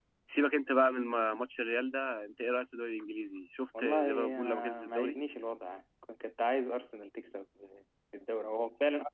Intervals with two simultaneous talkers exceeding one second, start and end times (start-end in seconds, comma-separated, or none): 3.8-5.2